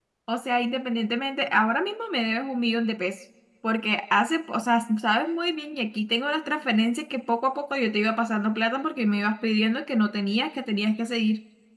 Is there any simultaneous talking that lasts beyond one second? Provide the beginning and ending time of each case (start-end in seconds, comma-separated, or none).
none